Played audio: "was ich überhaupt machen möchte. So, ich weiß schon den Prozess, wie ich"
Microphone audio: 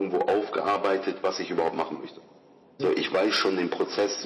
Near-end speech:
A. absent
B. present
B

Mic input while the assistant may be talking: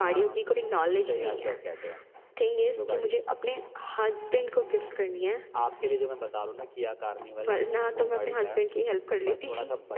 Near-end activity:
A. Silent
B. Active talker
A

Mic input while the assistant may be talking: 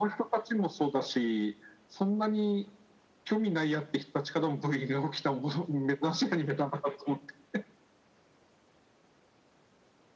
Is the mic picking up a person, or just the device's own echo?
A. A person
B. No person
B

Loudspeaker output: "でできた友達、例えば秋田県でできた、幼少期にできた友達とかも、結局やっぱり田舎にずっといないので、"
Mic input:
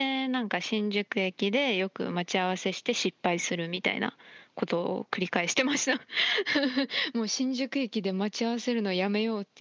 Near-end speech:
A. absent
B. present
B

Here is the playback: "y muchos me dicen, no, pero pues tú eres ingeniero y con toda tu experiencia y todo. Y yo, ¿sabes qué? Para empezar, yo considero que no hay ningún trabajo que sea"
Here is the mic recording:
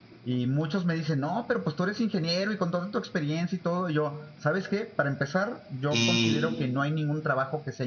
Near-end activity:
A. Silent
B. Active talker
B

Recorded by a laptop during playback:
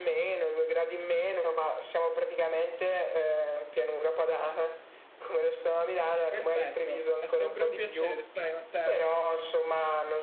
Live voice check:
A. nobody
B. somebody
B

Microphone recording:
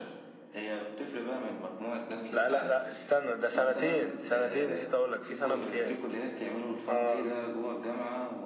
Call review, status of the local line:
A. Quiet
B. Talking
B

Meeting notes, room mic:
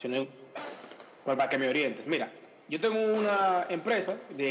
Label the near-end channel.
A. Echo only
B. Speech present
A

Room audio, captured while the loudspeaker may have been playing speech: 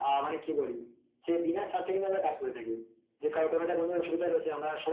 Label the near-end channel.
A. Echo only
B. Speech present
A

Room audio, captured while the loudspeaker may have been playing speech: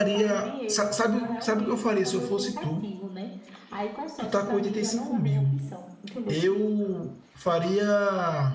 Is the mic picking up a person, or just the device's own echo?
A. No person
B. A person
B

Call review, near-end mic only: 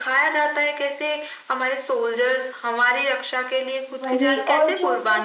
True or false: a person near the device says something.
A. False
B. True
B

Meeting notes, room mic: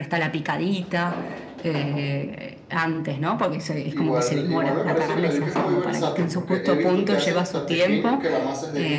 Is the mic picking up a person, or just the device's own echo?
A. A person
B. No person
A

